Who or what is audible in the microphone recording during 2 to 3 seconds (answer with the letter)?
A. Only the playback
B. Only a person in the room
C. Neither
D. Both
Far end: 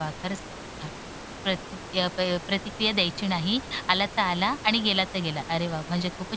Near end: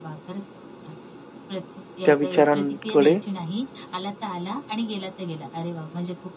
D